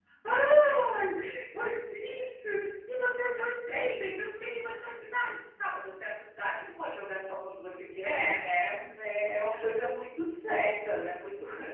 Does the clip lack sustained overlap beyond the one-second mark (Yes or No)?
Yes